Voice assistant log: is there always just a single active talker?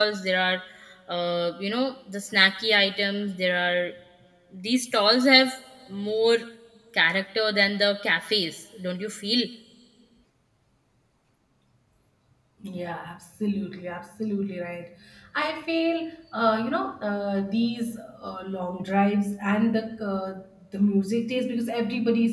Yes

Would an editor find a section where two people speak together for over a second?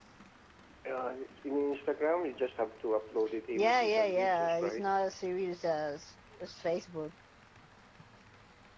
Yes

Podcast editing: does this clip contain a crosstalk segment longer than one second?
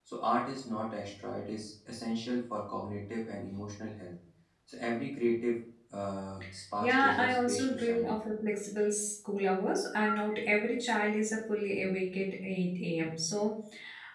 Yes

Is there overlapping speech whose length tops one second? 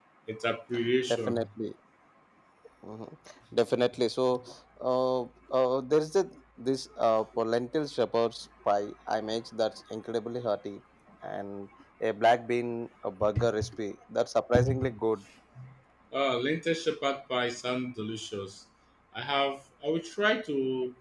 No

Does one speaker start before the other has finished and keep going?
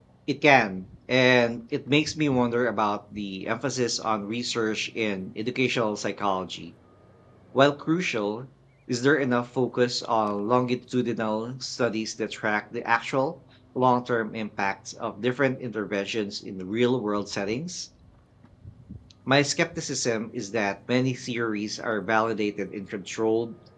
No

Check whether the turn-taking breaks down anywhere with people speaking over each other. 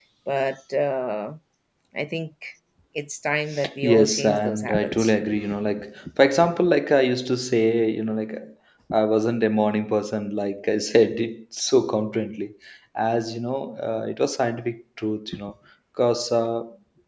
Yes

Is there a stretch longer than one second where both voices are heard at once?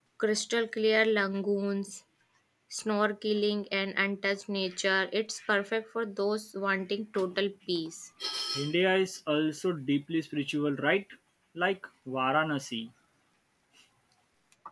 No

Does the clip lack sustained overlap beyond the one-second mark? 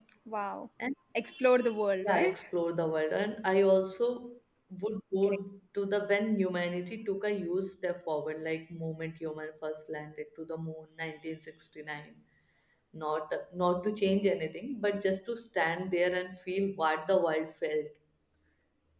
Yes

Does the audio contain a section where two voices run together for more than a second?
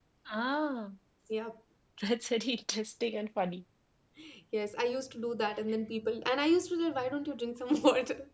No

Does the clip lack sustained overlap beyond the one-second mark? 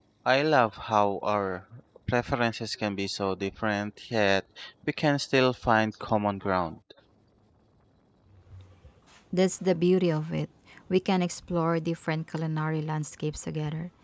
Yes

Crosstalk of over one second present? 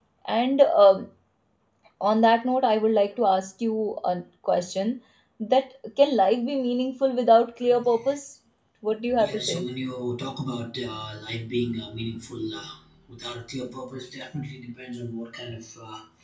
No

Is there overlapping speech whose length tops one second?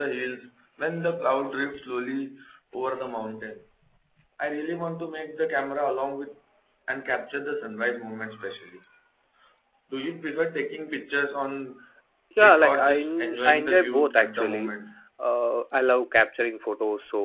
Yes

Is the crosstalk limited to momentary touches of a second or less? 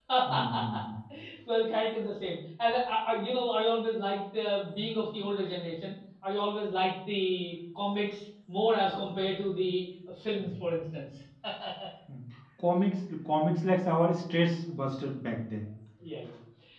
Yes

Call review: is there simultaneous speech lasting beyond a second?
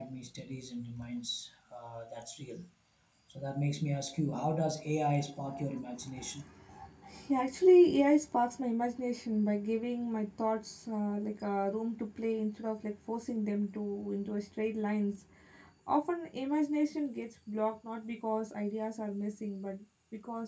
No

